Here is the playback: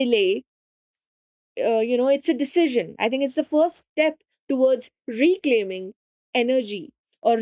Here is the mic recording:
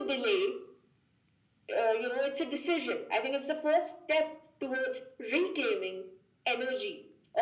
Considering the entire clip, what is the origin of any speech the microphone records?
echo only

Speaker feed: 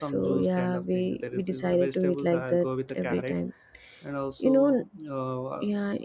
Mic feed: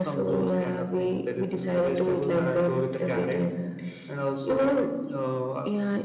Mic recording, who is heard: echo only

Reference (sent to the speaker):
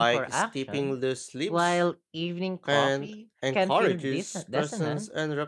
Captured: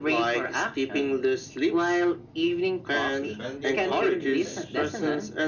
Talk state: both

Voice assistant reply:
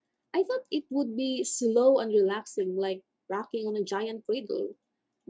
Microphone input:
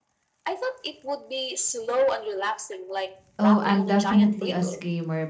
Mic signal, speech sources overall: both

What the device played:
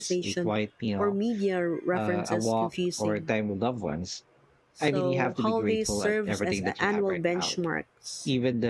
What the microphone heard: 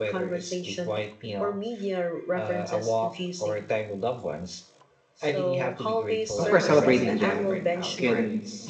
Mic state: both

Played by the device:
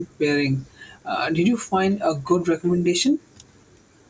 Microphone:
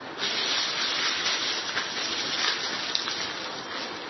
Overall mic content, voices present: neither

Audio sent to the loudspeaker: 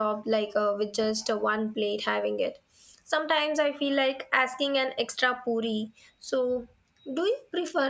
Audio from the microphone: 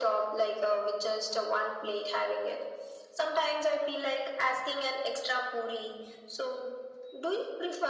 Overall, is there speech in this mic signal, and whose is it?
echo only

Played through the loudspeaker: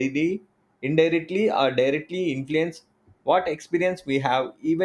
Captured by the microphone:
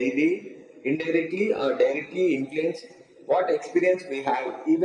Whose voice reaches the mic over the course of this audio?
echo only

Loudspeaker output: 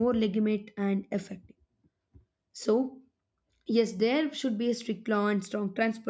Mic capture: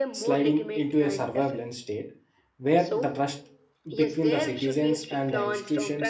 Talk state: both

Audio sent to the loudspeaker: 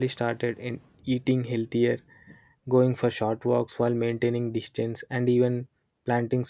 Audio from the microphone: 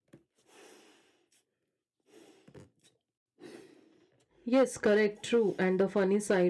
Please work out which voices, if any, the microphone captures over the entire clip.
user only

